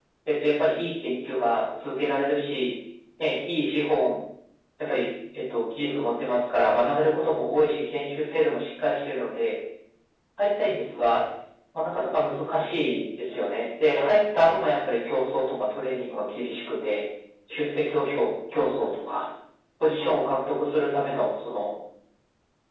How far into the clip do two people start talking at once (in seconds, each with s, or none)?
none